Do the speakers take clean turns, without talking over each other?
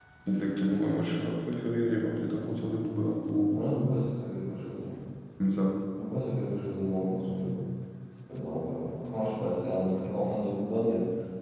Yes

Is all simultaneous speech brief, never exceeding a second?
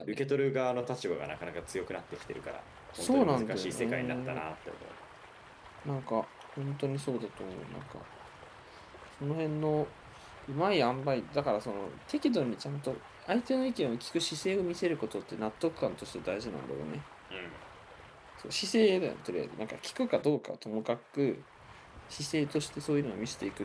No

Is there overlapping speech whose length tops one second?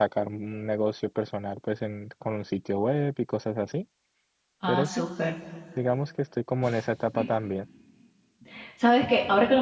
No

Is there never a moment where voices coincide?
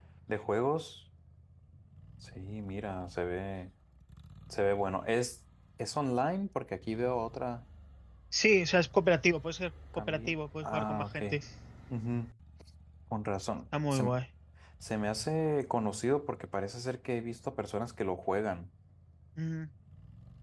No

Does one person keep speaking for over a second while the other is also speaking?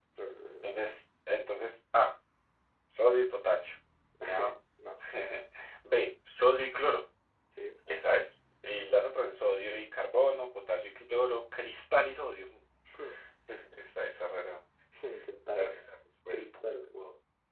No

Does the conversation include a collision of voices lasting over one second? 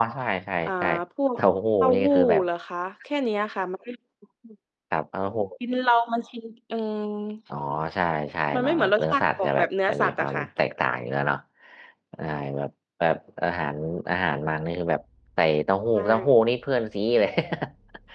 Yes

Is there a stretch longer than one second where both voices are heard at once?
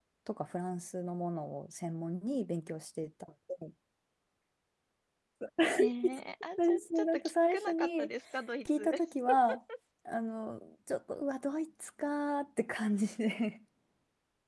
Yes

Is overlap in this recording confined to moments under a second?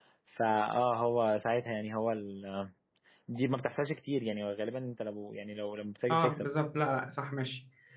Yes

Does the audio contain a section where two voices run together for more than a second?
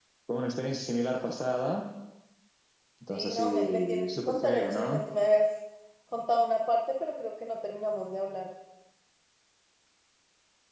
Yes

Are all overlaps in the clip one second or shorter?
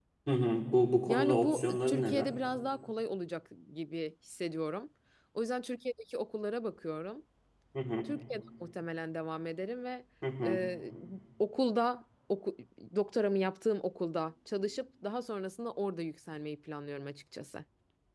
No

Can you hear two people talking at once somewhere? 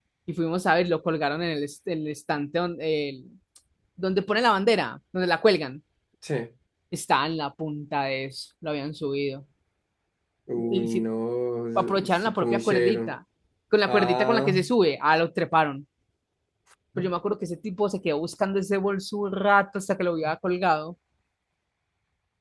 Yes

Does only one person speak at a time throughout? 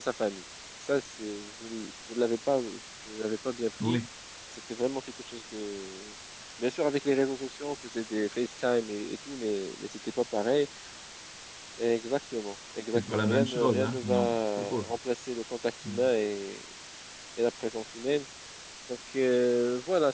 No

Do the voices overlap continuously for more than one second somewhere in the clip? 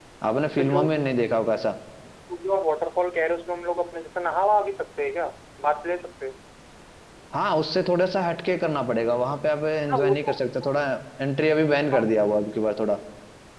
No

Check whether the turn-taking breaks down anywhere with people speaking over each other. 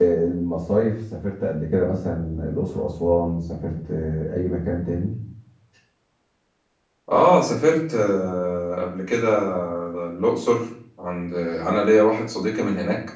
No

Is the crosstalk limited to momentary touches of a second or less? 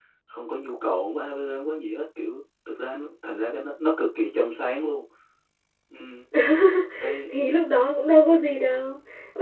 Yes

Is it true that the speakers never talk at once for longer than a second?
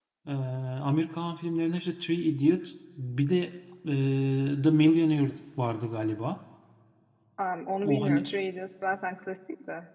Yes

